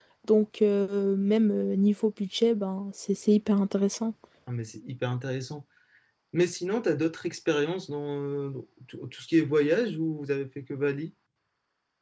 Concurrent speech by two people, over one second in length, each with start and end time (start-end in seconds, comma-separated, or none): none